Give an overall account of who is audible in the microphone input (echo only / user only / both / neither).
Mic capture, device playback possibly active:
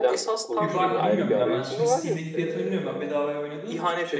both